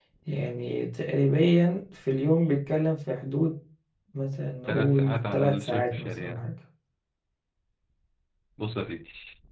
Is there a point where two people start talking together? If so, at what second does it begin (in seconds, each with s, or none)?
4.7 s